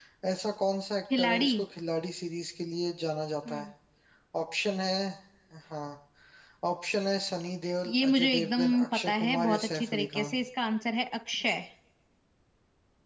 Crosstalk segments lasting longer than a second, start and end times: 7.8-10.4

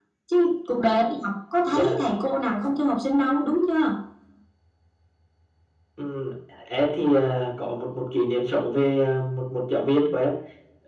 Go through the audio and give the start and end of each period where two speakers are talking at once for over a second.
none

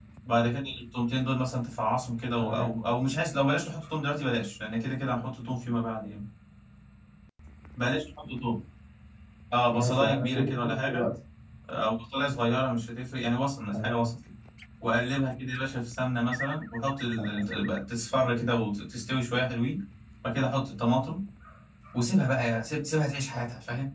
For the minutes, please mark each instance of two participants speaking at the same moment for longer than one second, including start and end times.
9.7-11.1

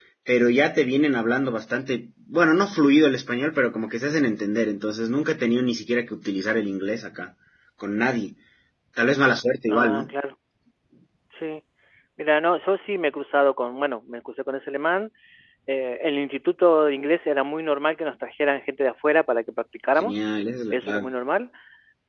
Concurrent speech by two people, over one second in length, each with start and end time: none

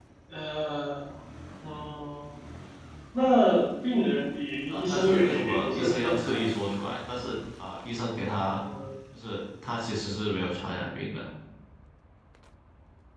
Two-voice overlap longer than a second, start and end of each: 4.7-6.5

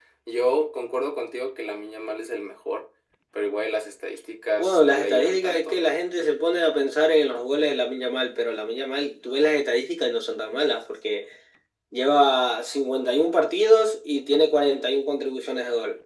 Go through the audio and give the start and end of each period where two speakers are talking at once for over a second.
4.6-6.0

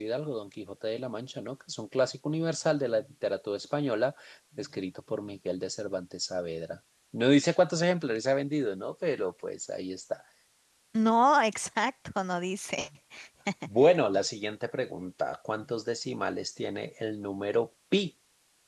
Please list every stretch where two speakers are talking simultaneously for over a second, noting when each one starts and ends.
none

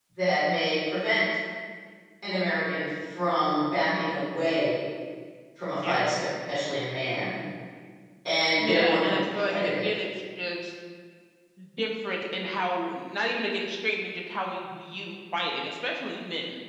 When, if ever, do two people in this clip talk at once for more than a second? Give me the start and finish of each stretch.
8.6-9.9

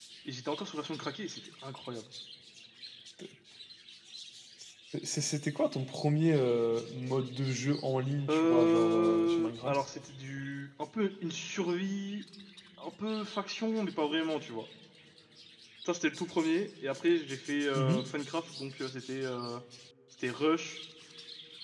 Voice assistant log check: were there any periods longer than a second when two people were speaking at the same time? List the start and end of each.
8.3-9.8

